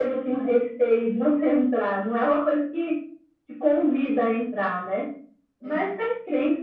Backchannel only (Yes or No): Yes